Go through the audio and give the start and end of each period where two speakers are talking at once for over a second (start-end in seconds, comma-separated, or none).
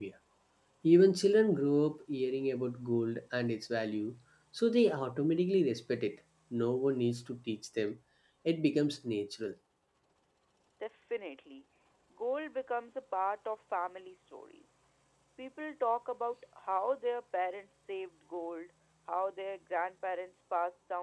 none